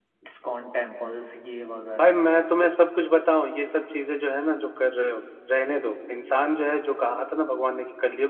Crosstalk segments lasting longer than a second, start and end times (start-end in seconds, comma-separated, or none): none